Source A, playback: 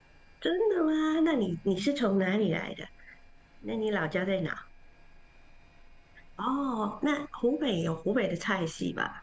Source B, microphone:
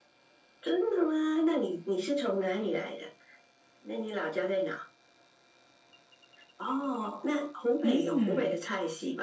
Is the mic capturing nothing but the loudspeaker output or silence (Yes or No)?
No